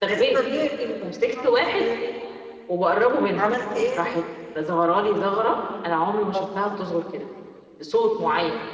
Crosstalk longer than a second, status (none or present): none